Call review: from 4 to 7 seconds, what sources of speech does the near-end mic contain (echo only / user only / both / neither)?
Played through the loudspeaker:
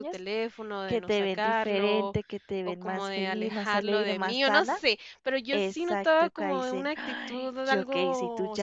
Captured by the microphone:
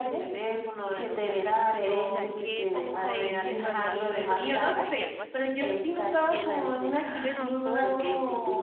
both